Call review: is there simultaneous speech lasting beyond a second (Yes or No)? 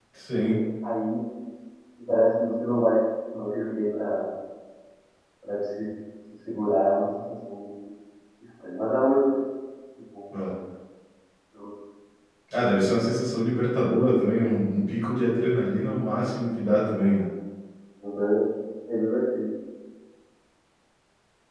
No